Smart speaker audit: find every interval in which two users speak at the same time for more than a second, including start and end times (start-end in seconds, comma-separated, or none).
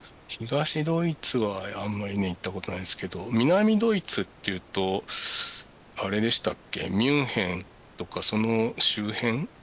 none